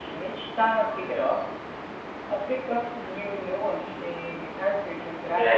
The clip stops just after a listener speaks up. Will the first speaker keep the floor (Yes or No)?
No